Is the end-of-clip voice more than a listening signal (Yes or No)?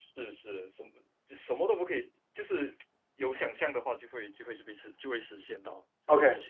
Yes